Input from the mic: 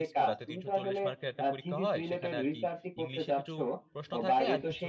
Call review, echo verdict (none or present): present